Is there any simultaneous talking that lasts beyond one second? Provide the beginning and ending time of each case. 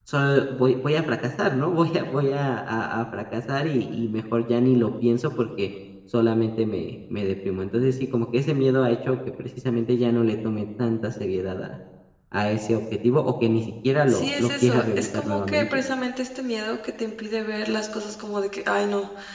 14.1-15.6

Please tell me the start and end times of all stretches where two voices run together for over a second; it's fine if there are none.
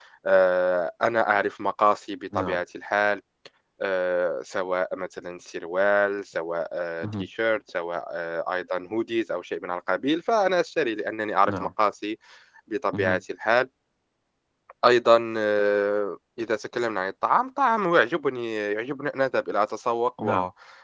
none

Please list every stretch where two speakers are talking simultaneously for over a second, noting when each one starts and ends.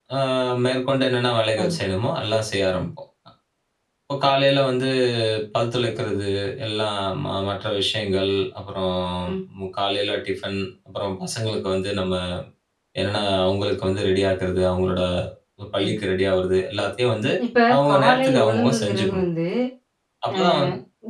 17.8-19.2

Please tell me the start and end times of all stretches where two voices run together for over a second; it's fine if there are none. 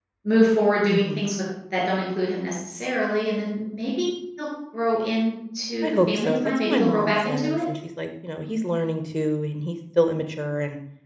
5.8-7.6

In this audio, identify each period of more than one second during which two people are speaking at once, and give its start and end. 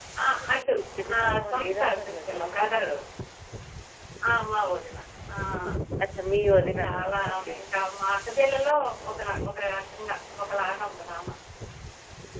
1.1-2.4, 6.5-7.8

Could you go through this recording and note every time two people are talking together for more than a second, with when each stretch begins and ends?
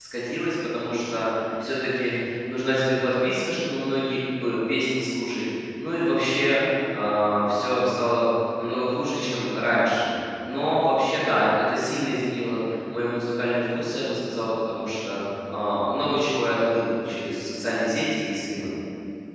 none

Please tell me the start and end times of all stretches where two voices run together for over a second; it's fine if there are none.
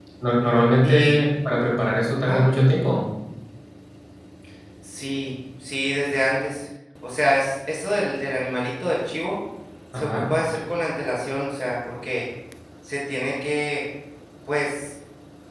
none

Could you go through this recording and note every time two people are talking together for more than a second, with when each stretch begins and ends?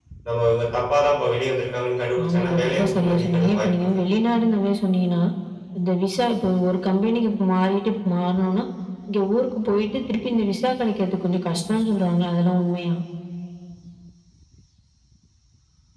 2.2-4.0

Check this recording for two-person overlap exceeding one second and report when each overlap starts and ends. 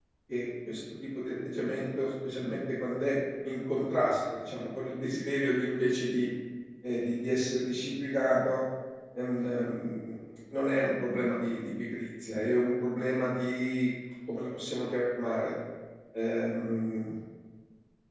none

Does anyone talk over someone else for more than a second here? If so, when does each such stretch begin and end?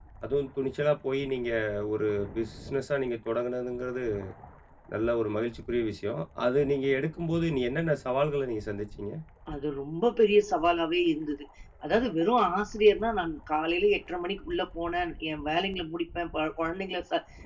none

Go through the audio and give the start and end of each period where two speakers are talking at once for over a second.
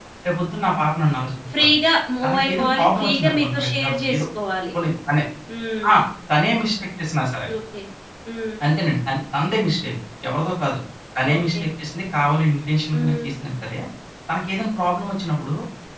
2.2-4.2

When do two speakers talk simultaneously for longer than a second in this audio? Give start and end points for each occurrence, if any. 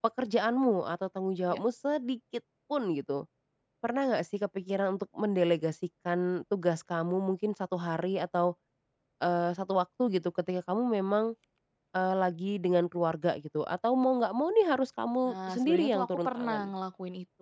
15.3-16.7

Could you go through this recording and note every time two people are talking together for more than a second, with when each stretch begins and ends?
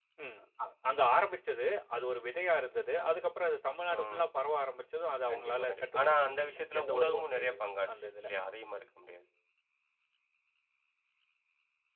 5.3-8.3

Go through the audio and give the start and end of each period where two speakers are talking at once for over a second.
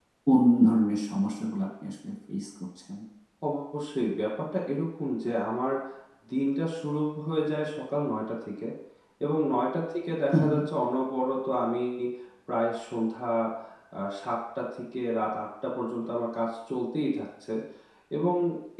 none

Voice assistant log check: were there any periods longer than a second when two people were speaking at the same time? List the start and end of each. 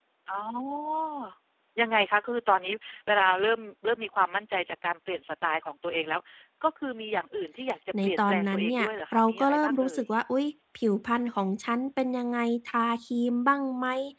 8.0-10.0

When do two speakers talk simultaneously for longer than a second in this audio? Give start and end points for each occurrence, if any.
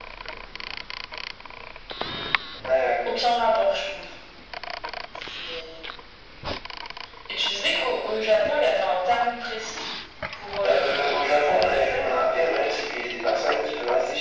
10.6-12.1

